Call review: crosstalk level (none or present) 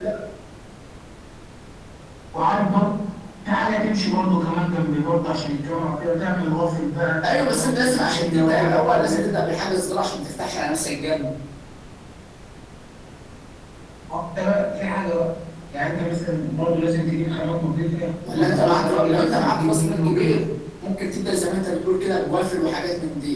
present